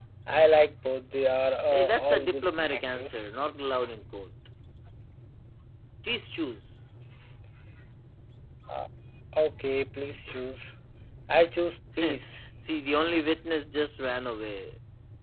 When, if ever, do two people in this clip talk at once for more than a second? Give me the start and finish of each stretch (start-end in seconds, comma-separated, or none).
1.7-3.2